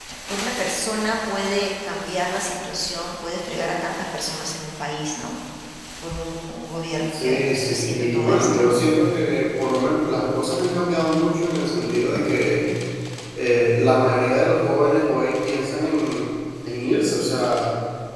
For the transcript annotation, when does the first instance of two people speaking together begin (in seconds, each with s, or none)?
7.1 s